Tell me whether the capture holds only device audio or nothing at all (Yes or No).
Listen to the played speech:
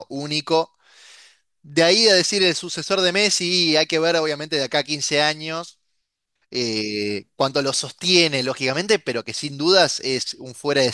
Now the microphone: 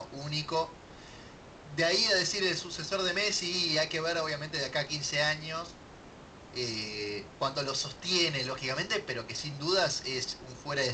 Yes